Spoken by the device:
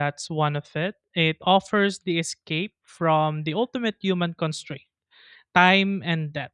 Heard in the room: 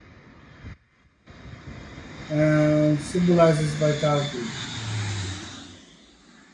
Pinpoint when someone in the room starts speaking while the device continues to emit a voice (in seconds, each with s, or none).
2.3 s